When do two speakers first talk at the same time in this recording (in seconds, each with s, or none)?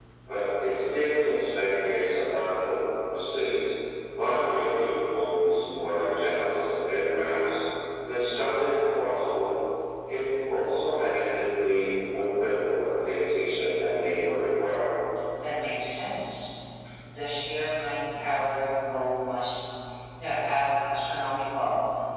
none